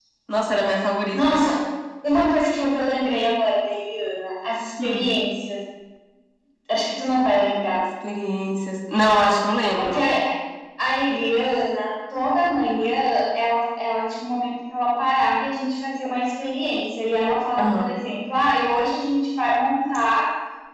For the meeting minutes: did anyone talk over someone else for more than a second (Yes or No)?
No